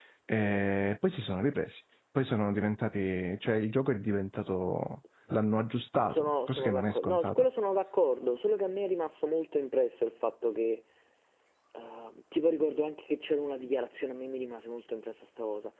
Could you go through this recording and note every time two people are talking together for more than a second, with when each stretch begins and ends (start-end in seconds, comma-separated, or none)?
6.1-7.5